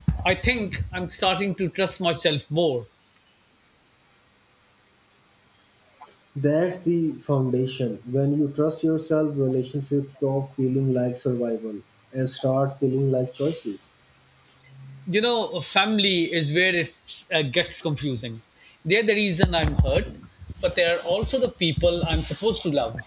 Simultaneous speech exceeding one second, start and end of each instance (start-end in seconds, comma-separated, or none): none